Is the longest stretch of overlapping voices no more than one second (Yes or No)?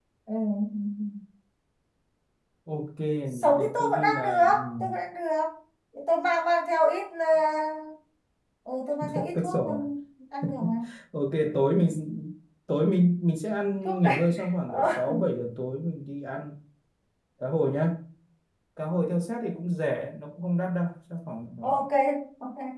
No